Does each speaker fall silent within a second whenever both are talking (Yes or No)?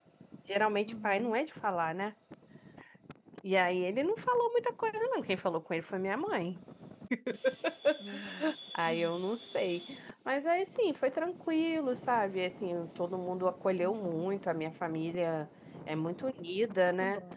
Yes